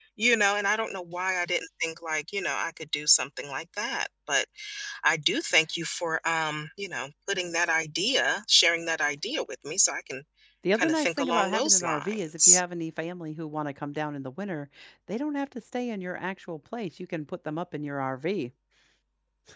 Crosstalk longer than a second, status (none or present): present